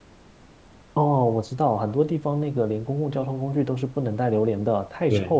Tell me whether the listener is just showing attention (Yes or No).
No